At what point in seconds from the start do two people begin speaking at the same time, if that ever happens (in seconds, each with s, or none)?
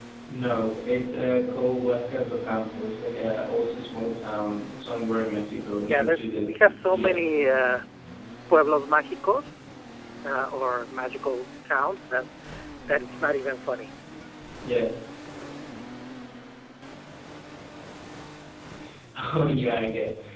5.9 s